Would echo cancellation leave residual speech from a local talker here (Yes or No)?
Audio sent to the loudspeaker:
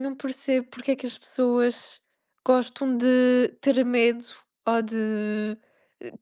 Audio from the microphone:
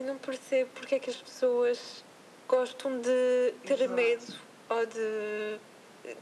Yes